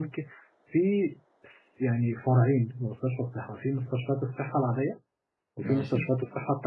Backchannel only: Yes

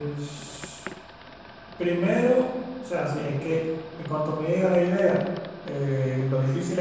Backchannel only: Yes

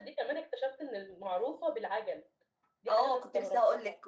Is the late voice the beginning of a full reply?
Yes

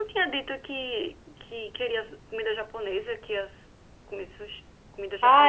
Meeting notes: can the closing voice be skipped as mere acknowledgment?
No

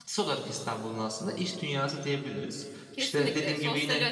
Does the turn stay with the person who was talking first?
No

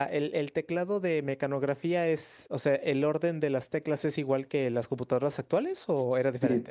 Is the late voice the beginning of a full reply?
Yes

